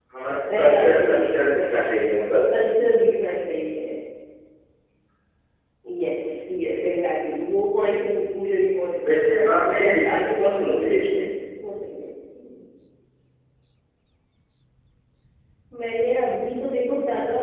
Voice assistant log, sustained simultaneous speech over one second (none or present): present